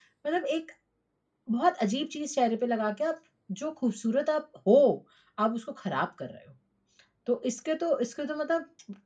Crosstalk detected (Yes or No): No